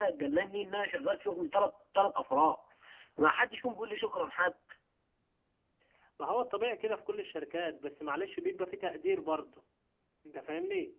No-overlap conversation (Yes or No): Yes